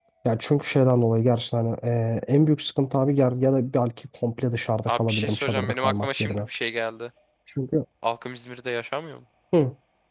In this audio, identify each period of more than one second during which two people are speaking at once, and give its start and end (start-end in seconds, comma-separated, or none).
4.9-6.5